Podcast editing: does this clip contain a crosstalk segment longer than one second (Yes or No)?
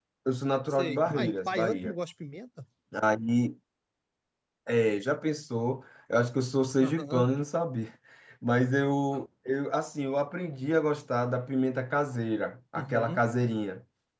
Yes